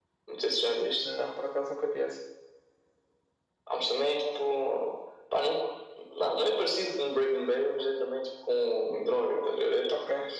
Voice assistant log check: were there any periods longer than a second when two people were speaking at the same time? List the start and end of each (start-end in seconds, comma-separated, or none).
none